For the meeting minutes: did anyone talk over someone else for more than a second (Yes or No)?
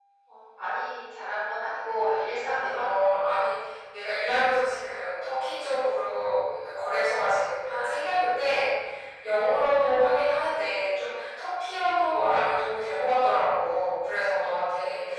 No